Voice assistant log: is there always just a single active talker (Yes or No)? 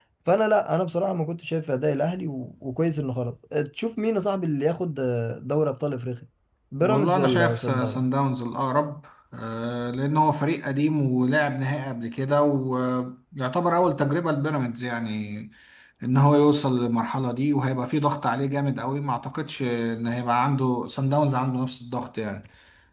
No